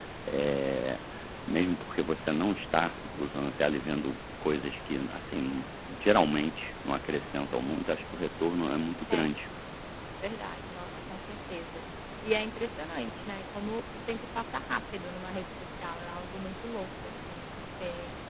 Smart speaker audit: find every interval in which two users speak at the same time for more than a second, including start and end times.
none

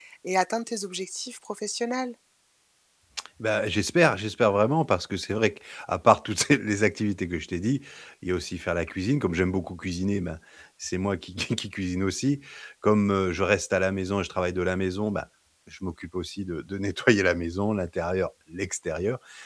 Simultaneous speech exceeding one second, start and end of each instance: none

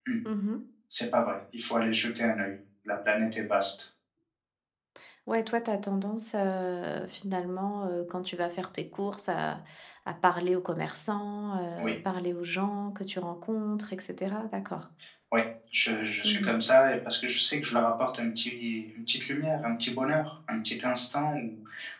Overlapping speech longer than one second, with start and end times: none

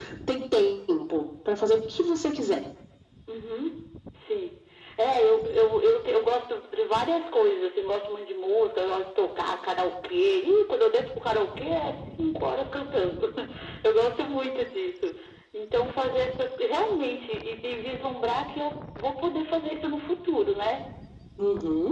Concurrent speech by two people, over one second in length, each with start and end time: none

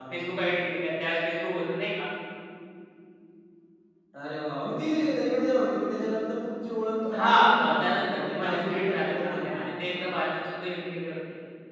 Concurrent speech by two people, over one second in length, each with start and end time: 7.2-9.5

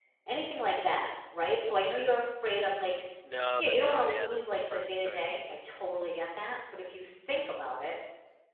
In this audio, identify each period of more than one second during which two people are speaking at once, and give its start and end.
3.6-5.6

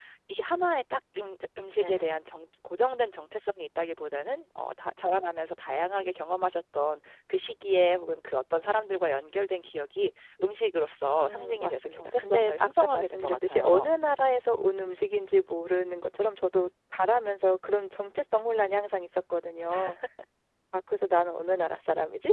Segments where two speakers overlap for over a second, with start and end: 11.2-13.9

